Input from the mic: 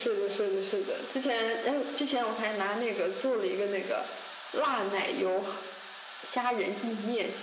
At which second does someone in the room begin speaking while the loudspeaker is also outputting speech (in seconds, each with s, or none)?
none